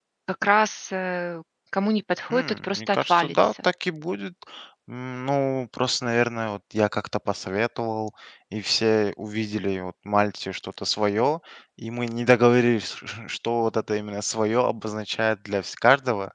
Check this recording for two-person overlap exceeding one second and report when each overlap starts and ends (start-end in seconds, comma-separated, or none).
2.3-3.5